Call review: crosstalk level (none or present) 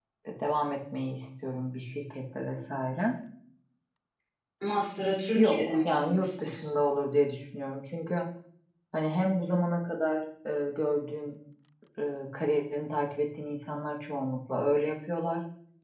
present